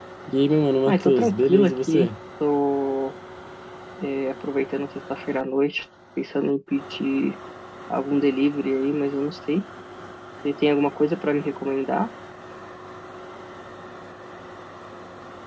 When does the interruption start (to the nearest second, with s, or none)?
1 s